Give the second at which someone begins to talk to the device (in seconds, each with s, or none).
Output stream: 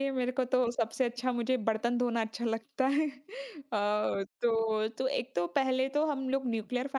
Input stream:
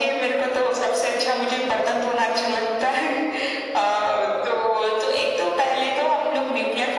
none